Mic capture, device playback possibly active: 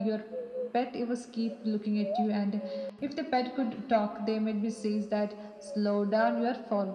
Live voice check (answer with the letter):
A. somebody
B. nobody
B